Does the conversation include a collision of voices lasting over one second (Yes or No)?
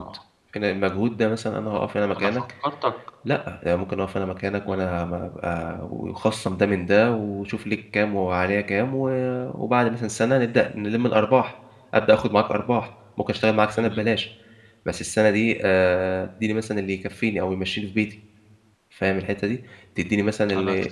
No